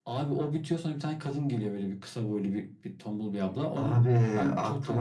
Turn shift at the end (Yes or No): Yes